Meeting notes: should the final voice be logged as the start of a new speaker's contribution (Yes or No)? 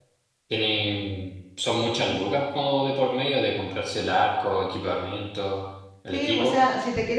Yes